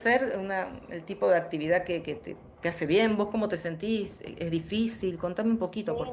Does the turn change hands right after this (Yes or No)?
Yes